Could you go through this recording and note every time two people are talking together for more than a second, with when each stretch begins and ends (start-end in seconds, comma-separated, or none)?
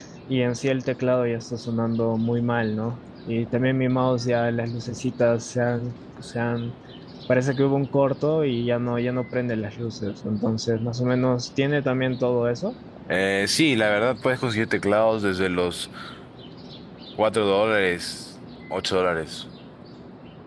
none